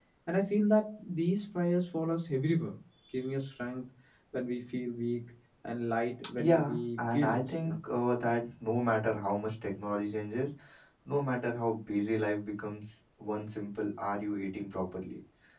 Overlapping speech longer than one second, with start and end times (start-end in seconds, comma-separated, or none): 6.4-7.8